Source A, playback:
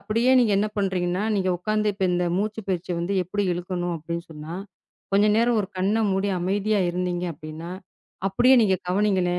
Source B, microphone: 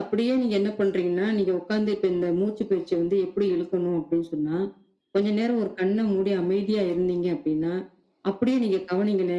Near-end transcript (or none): none